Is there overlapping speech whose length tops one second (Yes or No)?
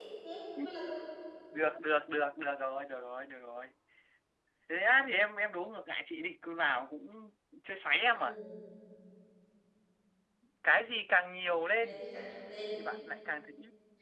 No